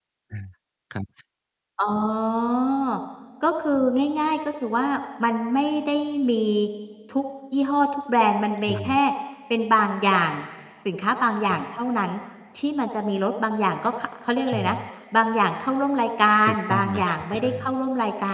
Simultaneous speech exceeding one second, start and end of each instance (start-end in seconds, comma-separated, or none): 16.5-17.8